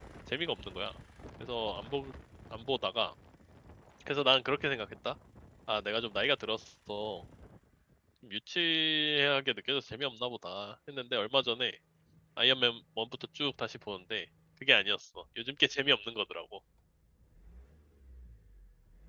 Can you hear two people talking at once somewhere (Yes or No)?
No